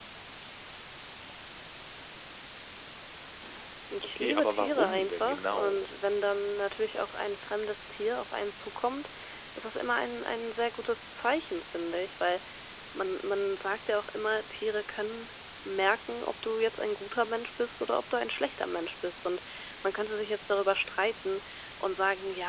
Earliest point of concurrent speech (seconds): 4.2 s

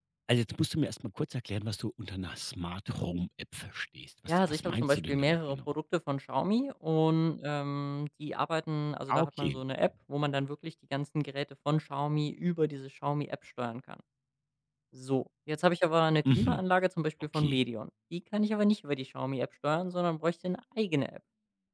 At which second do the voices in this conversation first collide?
4.3 s

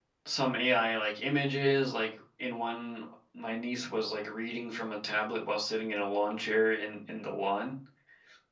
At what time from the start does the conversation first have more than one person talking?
none

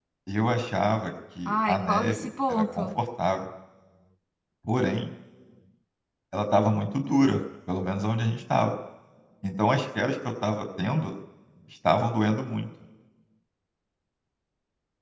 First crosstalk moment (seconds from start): 1.4 s

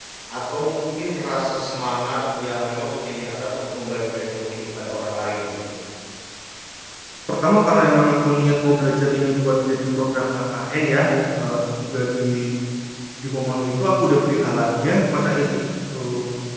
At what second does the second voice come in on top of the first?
none

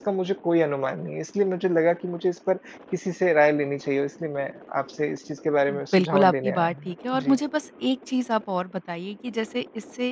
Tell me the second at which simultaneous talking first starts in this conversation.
5.7 s

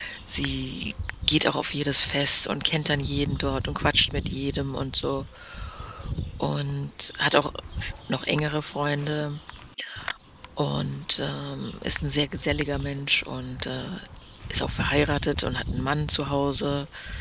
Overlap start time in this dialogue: none

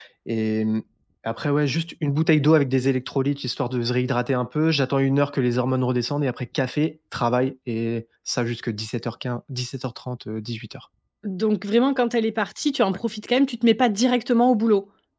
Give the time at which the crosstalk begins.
none

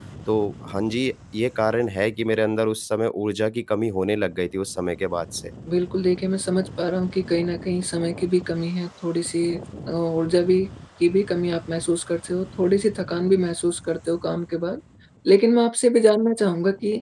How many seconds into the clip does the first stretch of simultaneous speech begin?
none

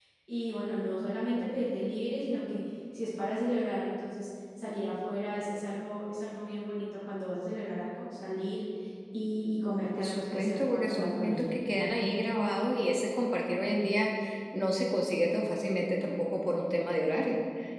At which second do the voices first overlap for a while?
10.0 s

